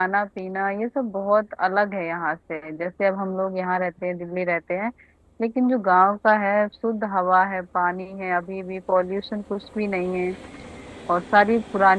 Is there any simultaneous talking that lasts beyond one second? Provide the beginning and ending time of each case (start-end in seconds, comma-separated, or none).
none